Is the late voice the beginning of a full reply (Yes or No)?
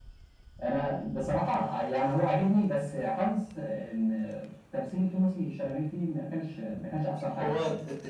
Yes